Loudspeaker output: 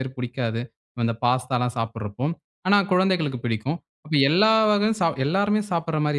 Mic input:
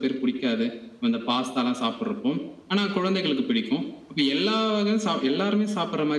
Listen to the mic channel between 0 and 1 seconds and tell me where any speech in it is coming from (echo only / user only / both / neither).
echo only